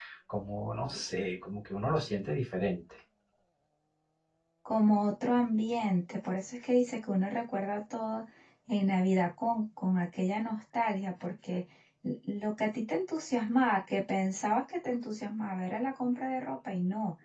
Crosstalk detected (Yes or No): No